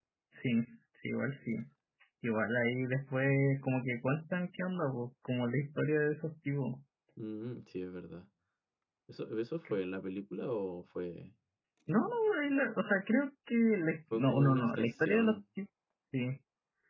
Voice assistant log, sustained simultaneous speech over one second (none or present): present